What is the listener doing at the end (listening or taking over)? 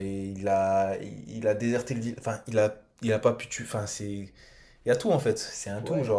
taking over